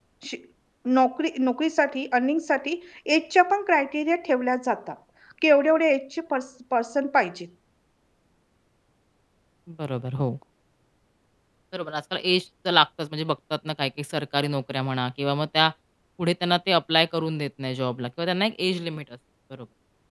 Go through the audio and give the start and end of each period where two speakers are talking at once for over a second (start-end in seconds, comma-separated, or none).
none